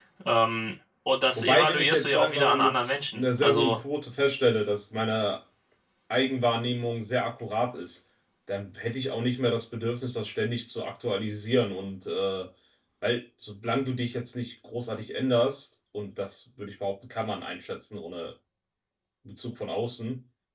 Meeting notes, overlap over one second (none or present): present